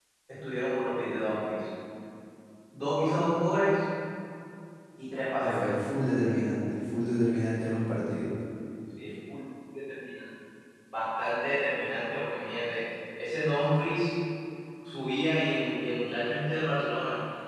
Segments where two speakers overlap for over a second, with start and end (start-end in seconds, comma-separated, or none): none